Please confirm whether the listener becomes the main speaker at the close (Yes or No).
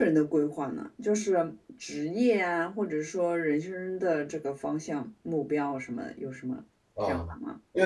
Yes